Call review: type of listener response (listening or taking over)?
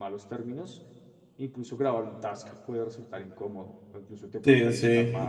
taking over